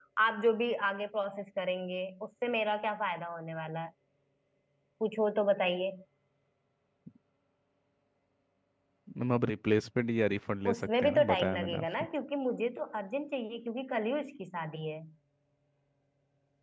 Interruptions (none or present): present